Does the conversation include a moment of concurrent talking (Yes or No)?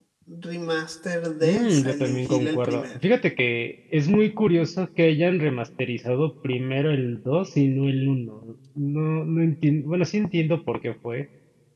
Yes